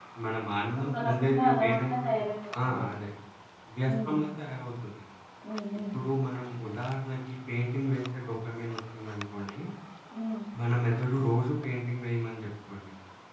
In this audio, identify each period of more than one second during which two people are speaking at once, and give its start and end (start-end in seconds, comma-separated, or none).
0.8-2.2